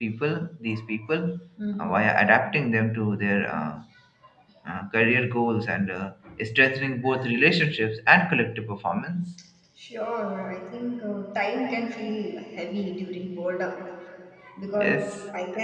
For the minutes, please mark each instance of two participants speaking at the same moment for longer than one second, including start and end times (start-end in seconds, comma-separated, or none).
none